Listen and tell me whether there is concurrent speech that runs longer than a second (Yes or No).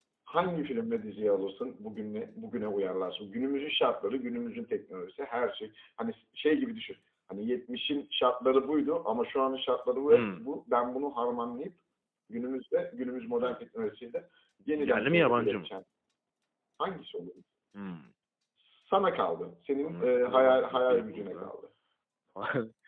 Yes